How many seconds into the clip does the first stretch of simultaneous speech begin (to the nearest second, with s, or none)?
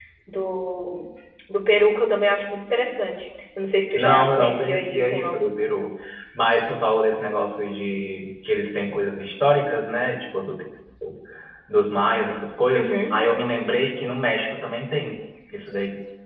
4 s